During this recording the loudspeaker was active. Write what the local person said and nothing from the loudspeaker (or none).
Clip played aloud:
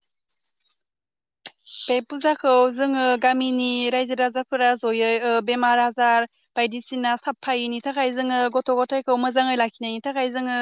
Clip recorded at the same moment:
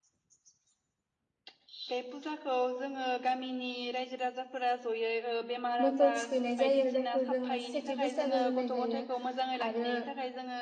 मोसौ थुखैनाय जायो जायखौ जोङो सेथि बैसागो होननाय जायो। आरो